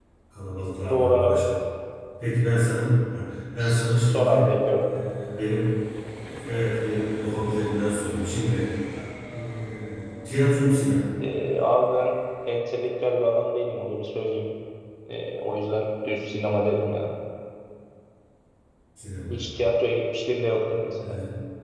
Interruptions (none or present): present